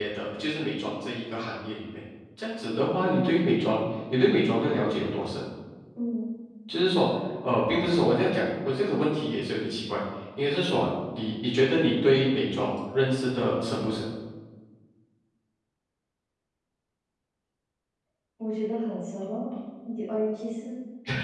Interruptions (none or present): none